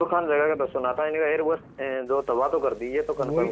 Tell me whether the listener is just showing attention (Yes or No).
No